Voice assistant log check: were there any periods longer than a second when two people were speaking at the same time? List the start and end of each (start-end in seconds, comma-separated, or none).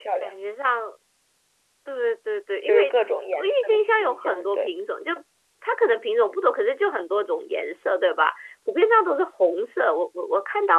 3.4-4.7